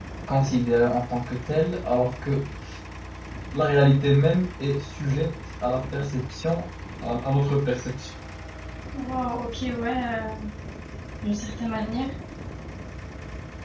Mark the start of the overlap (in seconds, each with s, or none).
none